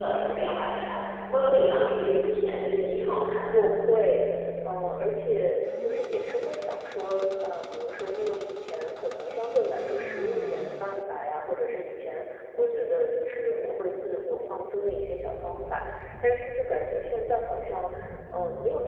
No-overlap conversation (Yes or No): Yes